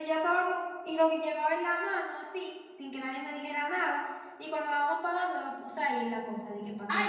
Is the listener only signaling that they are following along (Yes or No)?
No